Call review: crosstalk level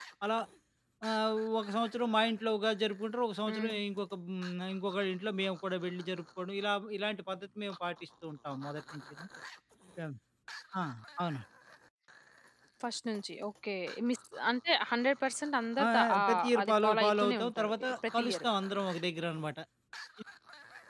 present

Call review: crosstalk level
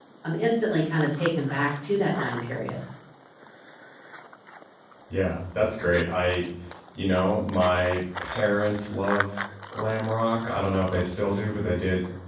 none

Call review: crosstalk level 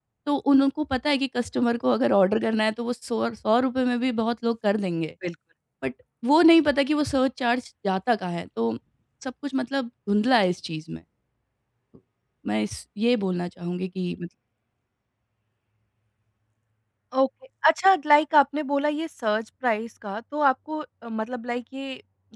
none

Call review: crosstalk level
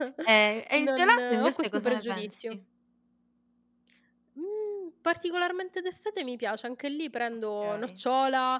present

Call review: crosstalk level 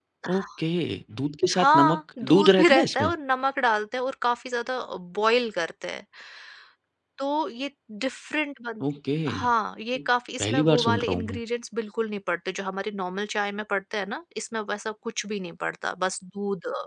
present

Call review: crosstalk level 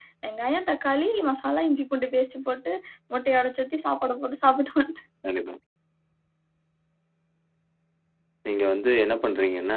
none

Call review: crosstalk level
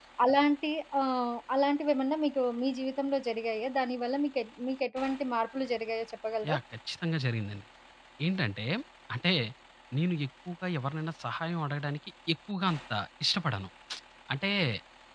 none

